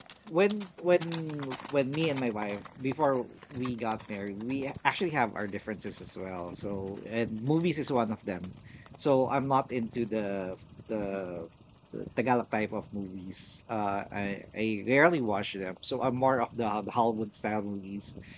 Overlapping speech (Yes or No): No